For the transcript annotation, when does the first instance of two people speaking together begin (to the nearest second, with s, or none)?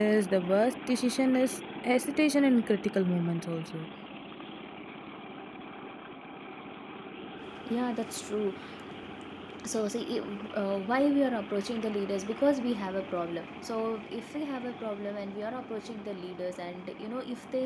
none